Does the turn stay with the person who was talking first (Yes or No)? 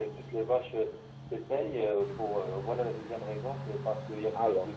Yes